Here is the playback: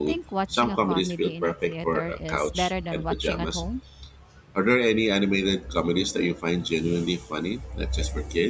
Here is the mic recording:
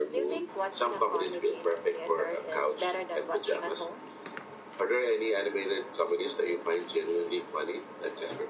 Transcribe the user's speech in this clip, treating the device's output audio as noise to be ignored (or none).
none